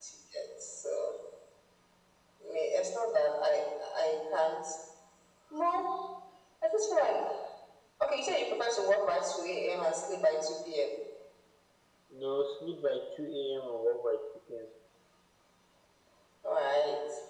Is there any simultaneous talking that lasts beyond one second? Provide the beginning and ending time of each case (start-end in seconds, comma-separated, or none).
none